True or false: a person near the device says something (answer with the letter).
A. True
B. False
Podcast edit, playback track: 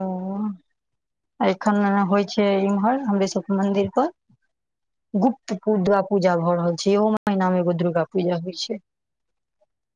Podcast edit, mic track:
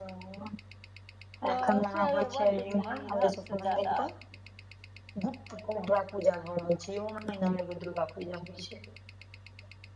A